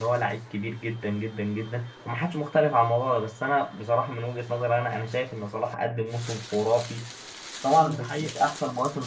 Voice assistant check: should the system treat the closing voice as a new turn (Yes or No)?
No